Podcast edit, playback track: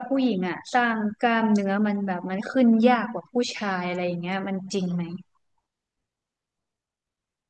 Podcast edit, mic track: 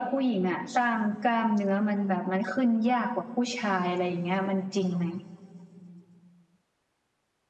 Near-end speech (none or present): none